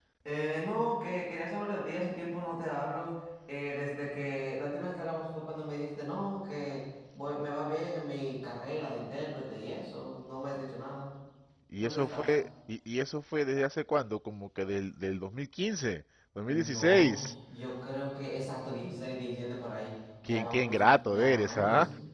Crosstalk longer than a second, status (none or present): present